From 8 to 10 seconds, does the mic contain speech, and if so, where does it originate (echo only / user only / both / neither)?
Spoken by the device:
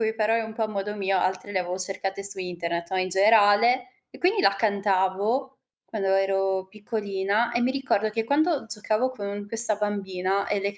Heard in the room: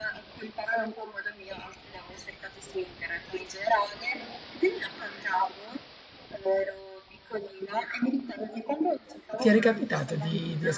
both